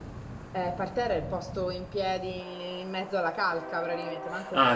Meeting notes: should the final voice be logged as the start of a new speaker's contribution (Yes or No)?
Yes